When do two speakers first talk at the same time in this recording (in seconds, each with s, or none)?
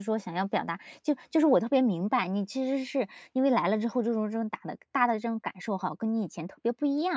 none